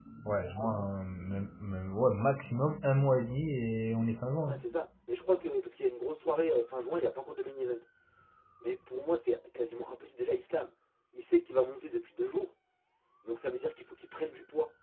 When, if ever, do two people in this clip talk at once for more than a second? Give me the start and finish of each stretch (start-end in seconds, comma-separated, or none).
none